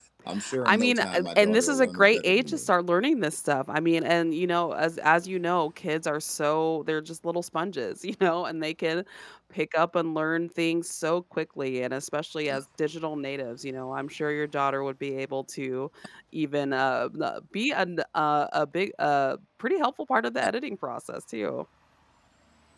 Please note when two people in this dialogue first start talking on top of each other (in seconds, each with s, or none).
0.6 s